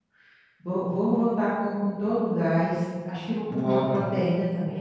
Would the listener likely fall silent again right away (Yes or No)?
Yes